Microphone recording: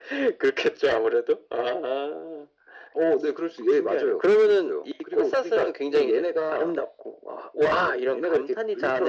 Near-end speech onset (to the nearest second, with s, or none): none